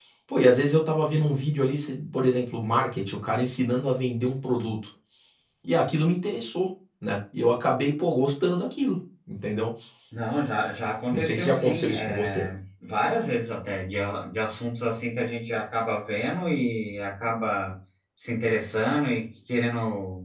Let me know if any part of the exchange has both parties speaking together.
Yes, from 11.1 s

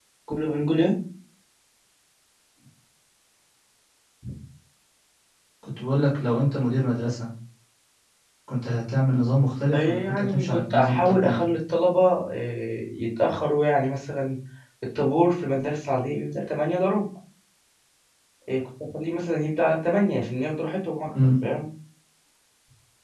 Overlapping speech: Yes, from 9.7 s

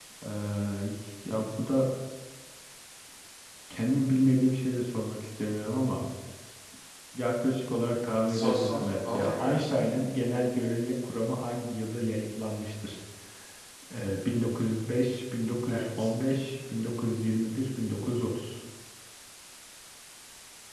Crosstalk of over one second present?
Yes, from 8.3 s

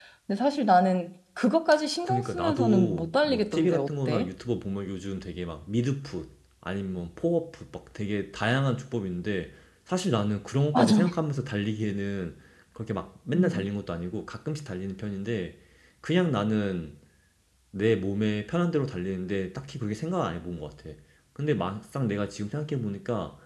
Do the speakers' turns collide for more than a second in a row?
Yes, from 2.0 s

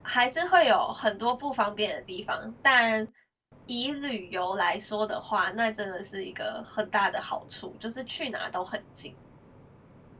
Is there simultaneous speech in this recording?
No

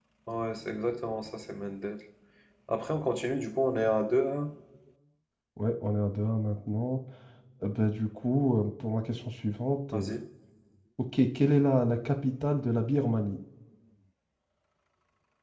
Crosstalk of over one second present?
No

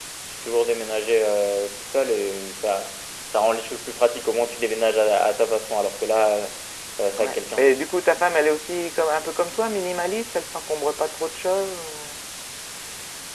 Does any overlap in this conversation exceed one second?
No

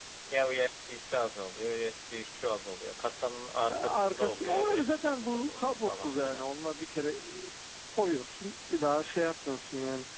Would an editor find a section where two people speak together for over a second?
Yes, from 3.7 s

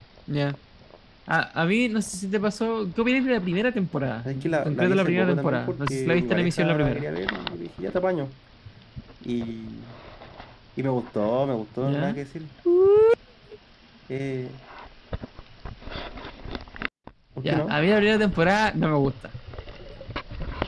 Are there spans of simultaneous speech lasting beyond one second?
Yes, from 4.2 s

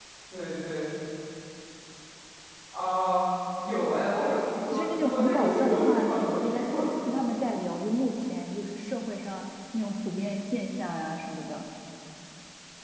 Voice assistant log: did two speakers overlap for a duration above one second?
Yes, from 4.7 s

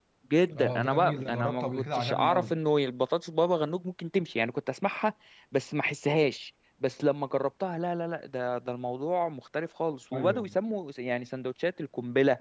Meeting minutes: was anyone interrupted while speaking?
Yes, from 0.6 s

